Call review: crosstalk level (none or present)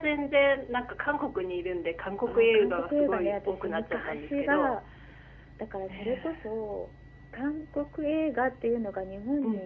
present